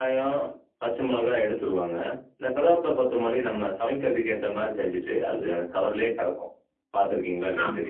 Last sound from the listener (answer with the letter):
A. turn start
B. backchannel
A